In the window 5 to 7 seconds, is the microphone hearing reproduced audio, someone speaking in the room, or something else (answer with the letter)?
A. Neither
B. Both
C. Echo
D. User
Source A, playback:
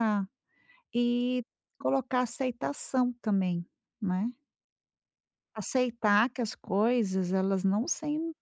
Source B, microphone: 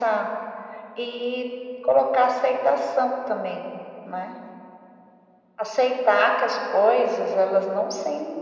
C